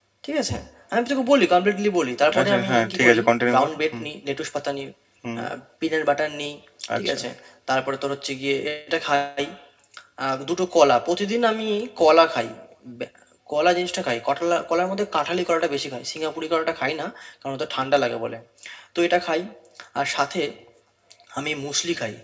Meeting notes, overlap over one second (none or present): present